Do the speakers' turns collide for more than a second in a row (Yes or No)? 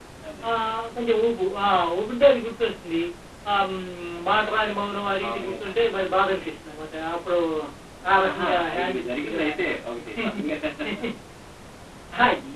Yes